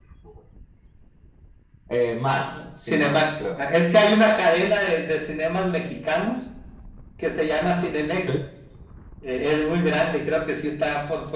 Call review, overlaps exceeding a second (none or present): present